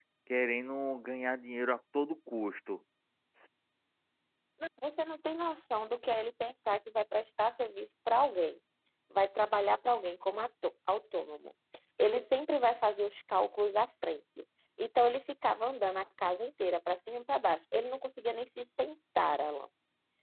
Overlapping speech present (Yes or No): No